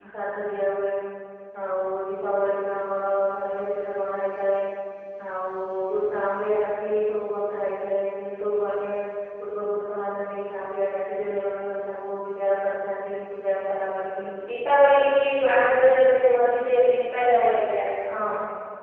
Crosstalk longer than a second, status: none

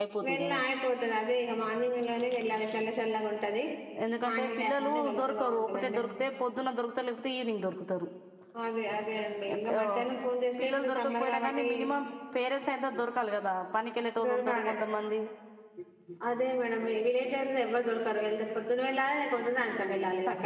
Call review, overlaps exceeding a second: present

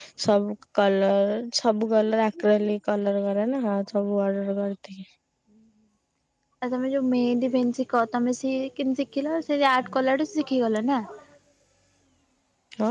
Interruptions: none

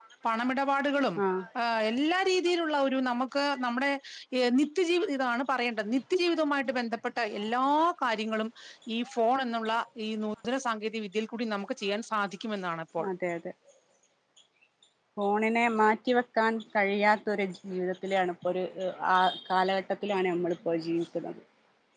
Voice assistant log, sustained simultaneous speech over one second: none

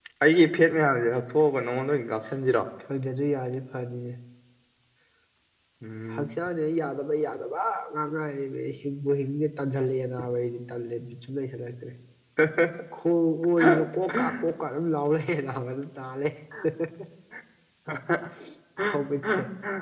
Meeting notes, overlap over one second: none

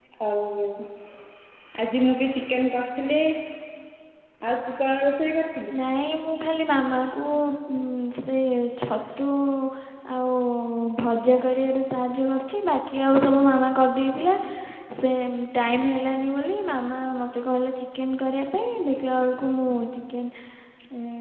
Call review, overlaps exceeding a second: none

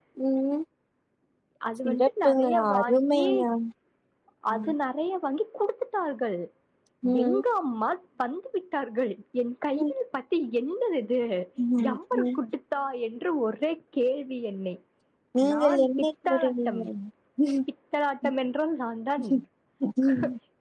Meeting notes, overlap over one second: present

